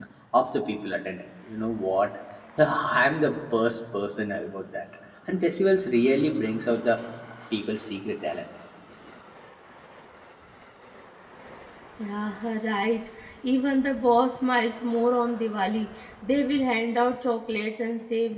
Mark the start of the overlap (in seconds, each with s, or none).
none